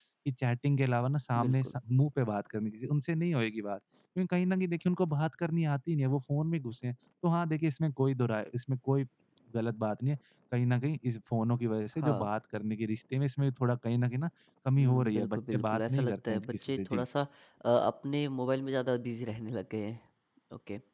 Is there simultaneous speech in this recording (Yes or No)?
Yes